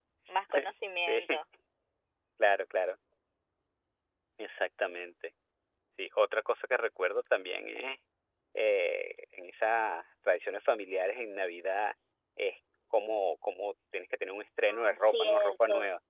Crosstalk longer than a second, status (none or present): present